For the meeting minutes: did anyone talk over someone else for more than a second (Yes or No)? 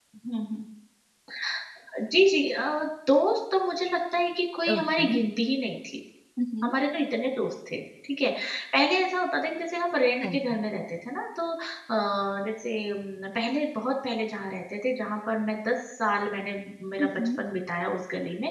No